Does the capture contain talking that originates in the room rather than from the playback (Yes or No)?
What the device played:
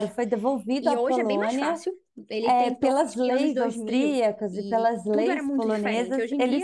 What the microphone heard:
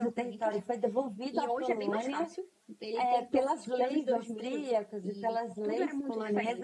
No